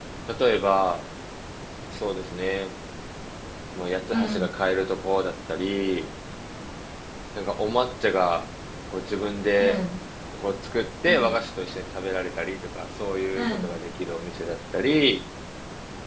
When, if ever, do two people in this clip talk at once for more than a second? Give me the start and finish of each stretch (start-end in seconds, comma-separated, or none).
none